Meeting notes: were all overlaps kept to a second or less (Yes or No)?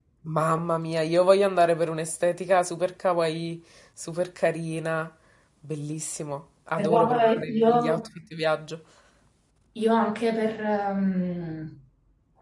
No